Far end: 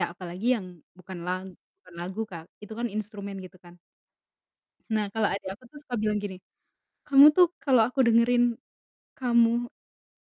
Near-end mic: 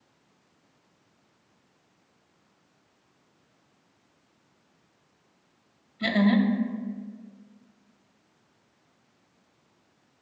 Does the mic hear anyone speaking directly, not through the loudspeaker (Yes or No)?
Yes